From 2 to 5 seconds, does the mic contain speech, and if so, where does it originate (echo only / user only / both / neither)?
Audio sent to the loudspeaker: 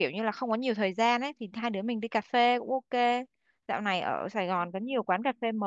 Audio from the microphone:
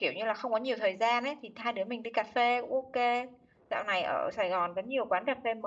echo only